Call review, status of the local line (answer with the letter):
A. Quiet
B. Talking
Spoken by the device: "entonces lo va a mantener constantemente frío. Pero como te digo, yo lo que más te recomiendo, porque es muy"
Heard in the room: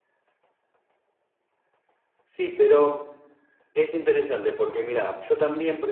B